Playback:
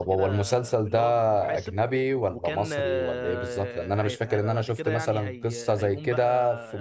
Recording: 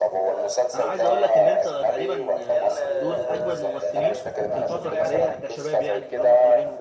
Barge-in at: 0.8 s

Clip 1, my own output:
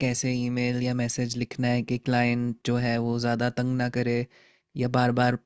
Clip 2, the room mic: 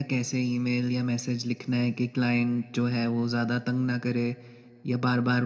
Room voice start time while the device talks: none

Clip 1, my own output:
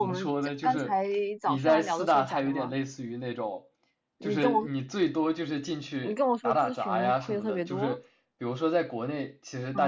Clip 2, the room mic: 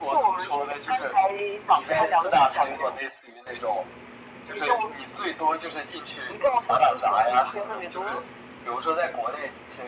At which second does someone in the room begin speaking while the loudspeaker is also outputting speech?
none

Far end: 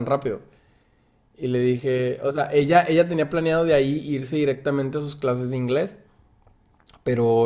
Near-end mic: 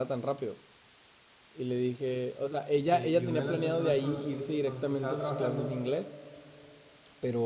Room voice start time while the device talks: 2.9 s

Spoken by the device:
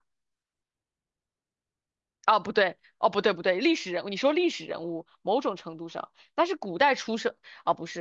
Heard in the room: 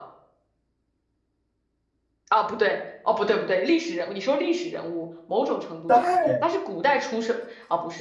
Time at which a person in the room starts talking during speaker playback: 5.8 s

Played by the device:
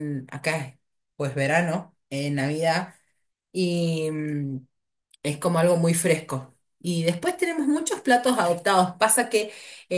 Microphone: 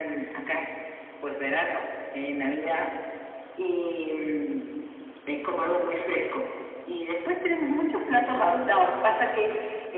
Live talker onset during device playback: none

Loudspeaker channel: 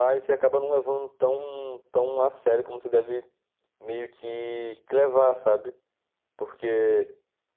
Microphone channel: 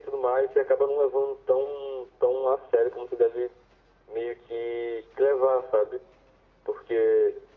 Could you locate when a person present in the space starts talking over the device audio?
none

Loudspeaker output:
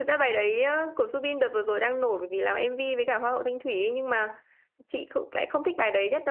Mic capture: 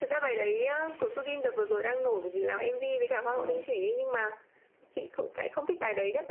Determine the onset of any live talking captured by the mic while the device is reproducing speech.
3.3 s

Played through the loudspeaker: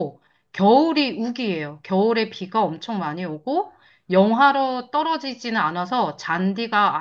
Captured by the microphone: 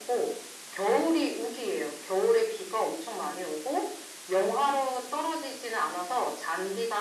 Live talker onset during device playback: none

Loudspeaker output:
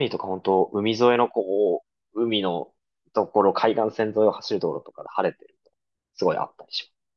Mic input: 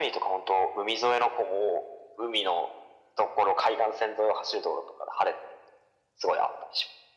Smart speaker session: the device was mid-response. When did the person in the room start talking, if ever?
none

